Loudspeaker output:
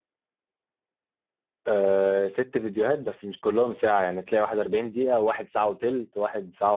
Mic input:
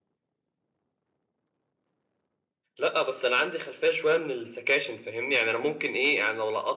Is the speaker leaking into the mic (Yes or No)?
No